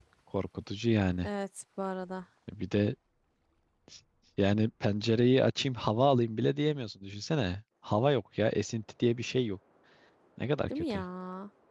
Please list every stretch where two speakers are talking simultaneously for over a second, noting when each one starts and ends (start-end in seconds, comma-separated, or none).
none